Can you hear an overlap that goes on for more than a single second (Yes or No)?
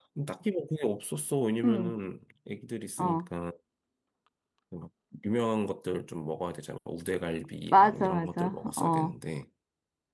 Yes